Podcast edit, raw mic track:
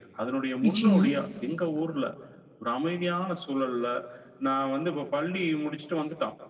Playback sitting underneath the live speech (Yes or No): Yes